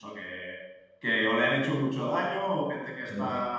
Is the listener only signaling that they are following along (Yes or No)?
Yes